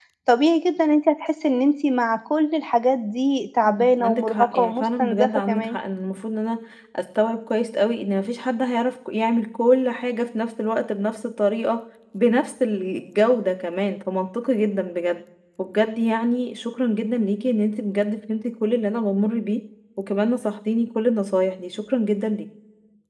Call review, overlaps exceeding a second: present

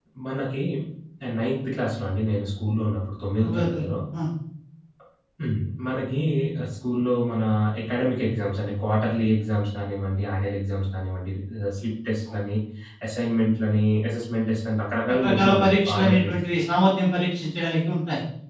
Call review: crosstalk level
present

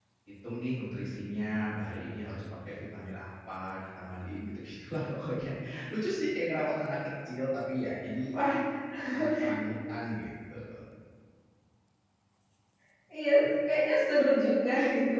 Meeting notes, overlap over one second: none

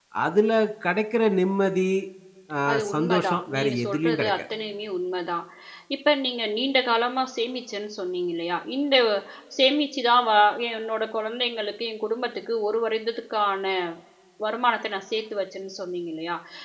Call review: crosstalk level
present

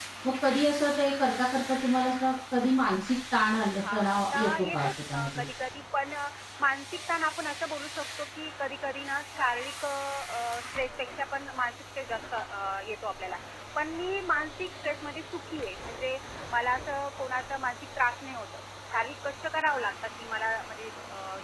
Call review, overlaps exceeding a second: present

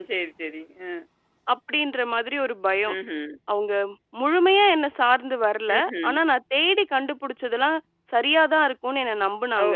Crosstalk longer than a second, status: none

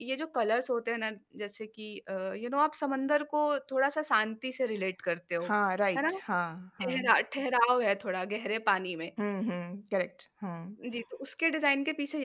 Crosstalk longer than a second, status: none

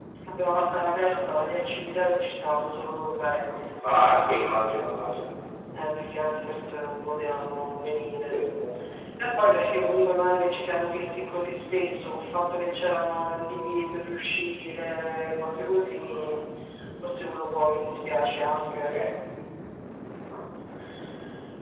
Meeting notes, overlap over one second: none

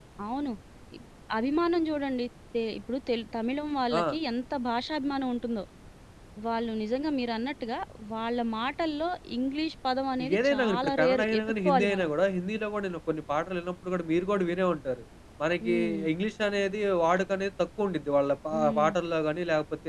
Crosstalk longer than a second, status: present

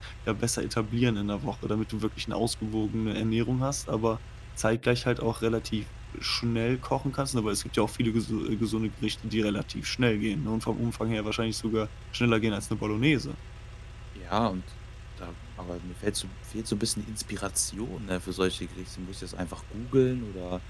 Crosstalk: none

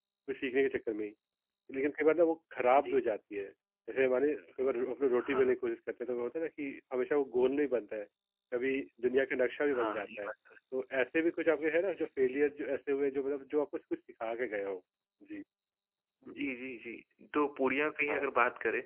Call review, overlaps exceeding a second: none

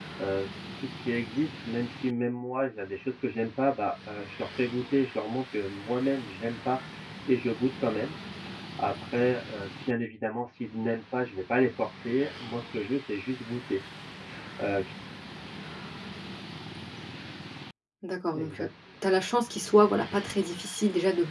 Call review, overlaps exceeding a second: none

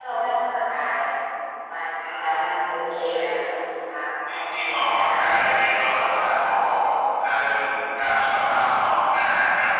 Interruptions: present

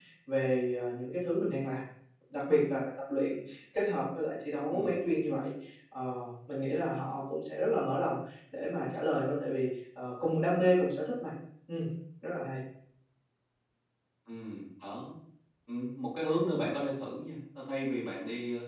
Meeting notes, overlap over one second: none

